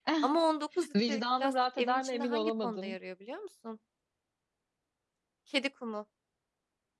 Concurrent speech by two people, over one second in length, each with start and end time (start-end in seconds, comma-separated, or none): 1.1-3.0